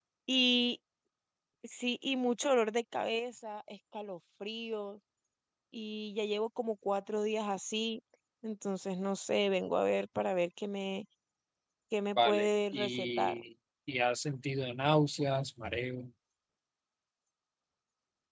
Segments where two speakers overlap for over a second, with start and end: 12.2-13.4

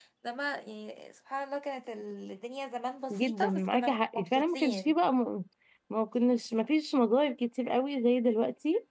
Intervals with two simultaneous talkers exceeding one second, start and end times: 3.1-4.9

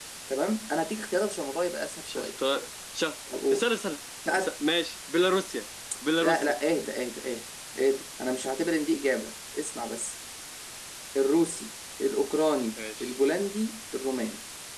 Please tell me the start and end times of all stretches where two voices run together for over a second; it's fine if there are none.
none

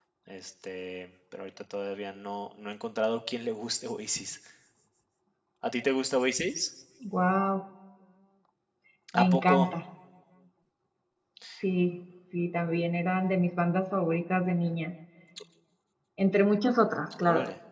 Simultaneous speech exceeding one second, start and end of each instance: none

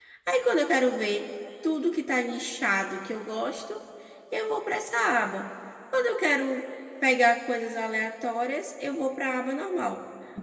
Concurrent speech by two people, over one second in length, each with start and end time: none

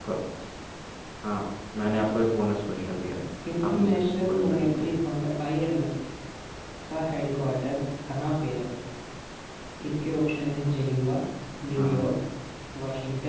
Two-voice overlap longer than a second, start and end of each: 3.7-5.0

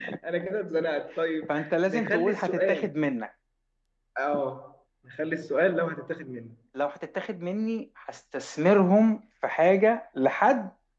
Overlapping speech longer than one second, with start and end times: 1.5-2.9

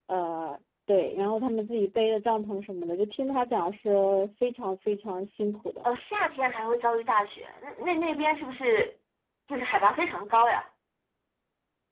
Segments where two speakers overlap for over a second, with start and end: none

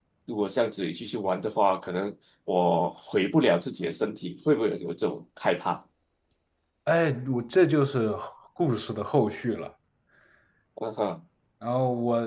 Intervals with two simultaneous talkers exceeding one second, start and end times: none

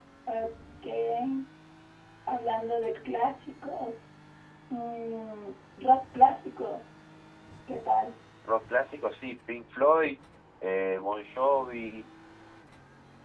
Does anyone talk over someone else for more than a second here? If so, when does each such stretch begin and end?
none

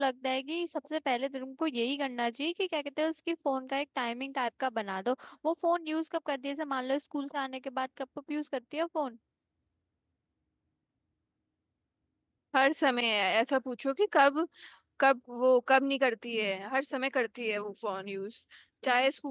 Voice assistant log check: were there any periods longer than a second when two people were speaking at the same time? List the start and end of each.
none

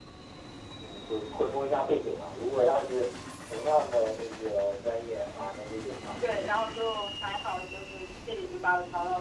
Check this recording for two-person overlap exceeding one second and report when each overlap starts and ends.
none

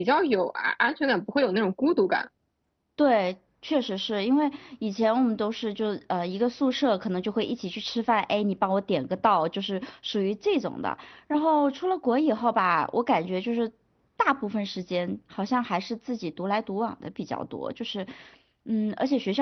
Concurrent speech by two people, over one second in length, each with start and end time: none

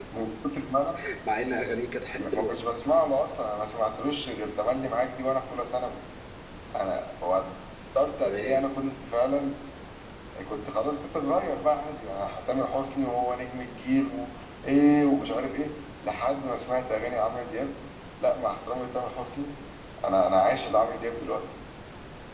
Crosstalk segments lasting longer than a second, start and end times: none

